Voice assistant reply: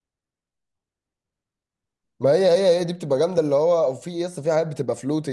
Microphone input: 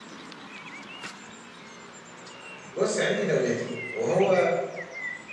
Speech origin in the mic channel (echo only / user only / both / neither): user only